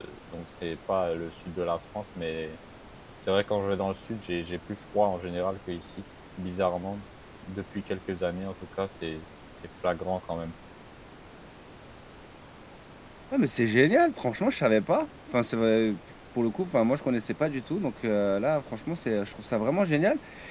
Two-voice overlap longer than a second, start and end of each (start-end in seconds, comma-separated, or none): none